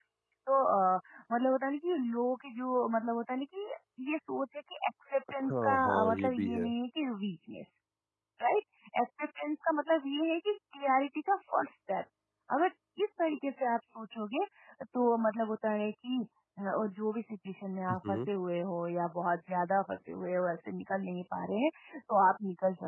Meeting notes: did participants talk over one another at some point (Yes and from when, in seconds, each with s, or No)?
Yes, from 5.4 s